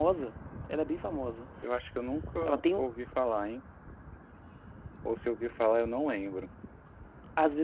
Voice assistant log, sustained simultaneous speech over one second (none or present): none